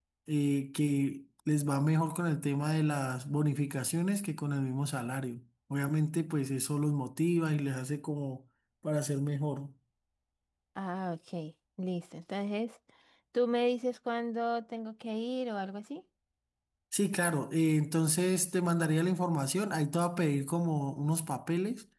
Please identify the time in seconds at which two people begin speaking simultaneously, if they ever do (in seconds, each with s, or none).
none